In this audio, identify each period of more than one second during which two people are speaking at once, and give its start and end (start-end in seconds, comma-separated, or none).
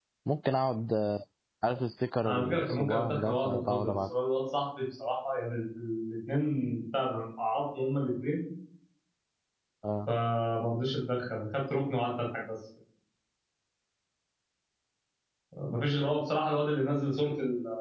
2.2-4.0